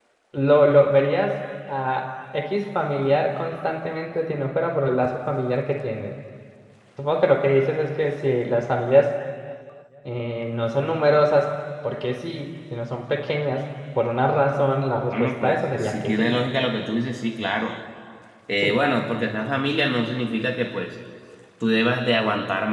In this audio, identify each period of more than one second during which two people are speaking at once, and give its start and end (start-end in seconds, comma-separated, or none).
15.1-16.4